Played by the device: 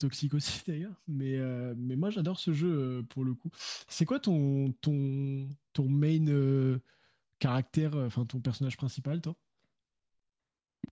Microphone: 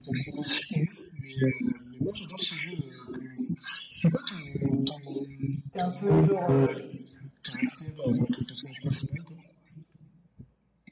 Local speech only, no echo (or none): t'es un peu genre, euh,